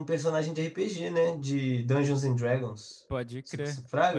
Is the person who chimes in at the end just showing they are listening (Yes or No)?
No